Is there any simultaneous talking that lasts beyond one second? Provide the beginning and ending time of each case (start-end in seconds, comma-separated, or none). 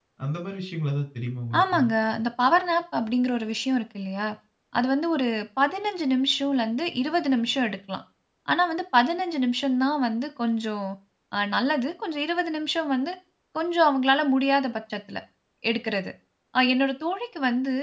none